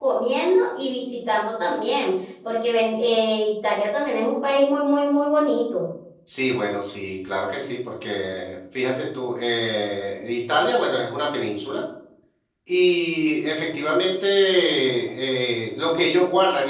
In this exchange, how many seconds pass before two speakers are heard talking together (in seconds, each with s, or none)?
none